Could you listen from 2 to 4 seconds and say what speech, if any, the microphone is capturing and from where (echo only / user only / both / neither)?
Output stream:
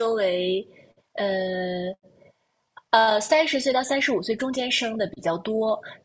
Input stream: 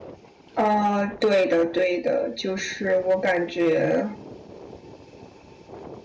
user only